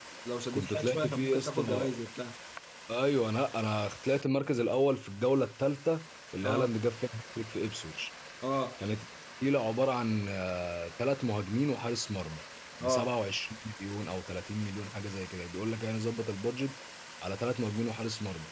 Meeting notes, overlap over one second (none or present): present